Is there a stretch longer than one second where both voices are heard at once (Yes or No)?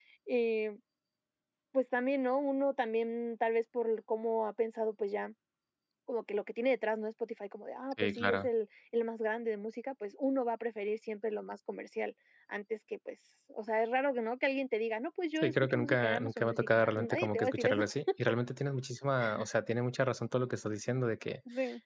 Yes